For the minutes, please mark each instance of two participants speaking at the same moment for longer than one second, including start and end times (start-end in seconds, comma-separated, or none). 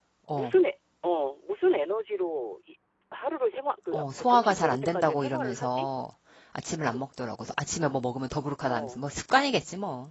3.9-5.9